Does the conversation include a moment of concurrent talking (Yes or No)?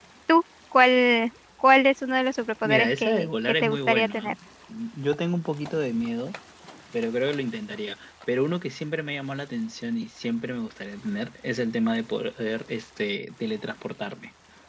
Yes